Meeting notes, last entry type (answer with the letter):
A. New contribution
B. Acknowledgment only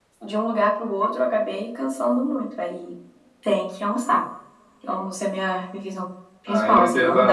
A